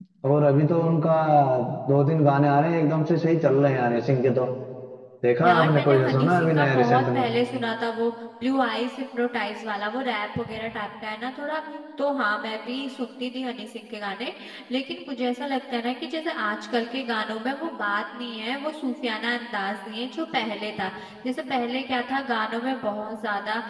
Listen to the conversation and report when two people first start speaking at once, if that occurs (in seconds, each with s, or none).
5.4 s